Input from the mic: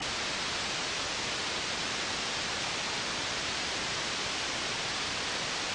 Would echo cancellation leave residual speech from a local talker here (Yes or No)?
No